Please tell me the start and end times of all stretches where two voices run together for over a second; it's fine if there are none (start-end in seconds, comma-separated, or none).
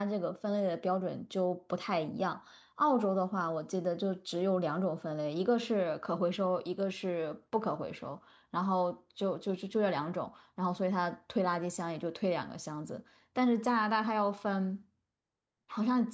none